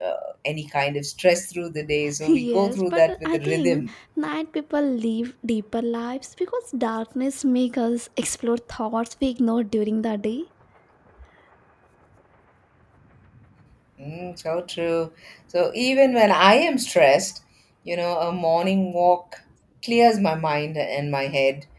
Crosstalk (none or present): present